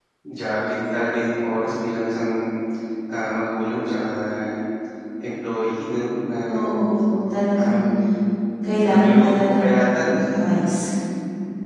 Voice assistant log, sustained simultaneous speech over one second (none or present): present